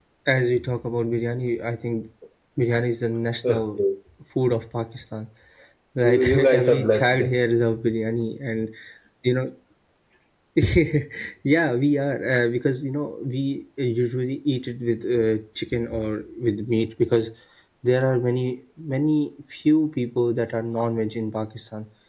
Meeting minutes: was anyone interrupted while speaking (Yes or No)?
Yes